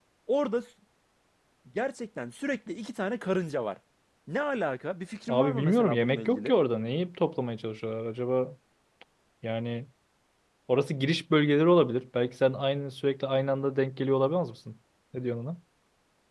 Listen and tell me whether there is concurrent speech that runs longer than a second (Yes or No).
Yes